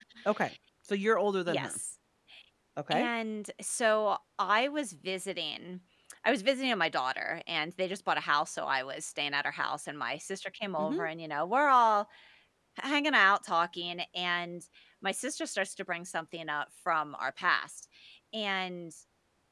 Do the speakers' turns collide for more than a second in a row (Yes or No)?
No